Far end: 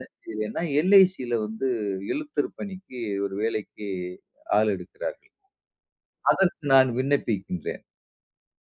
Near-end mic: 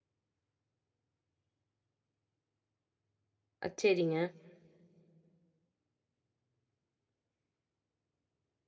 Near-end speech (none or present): present